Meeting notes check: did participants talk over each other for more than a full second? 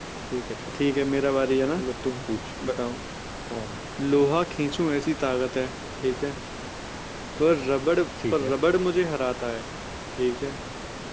No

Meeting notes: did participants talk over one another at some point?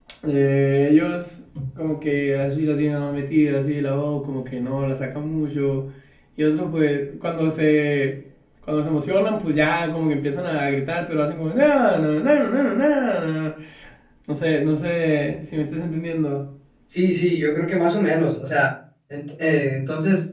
No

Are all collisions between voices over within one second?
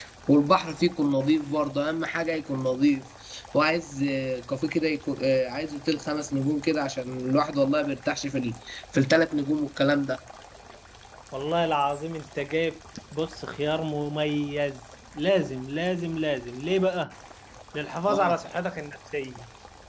Yes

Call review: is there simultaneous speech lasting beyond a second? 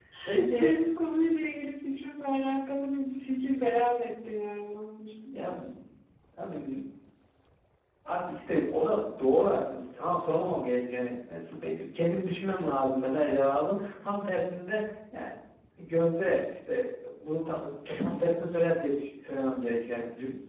No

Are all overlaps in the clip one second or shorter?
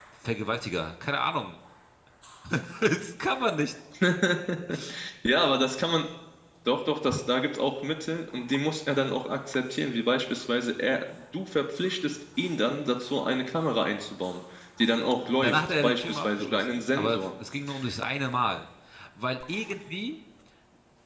No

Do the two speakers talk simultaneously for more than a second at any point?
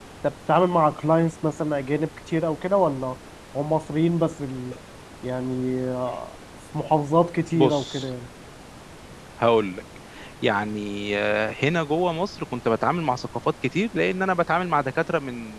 No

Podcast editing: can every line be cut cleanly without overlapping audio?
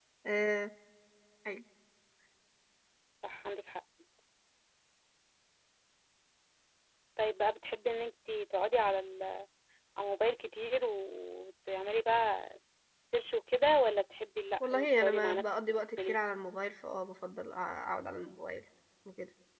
No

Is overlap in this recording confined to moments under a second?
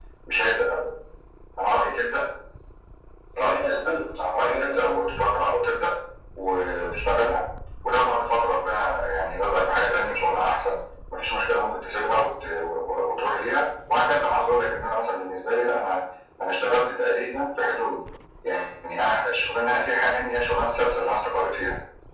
No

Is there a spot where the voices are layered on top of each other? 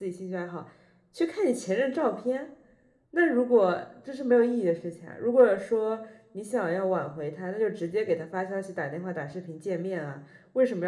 No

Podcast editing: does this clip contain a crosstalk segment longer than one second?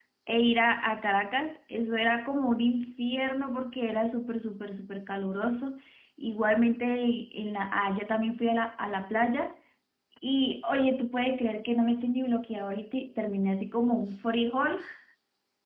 No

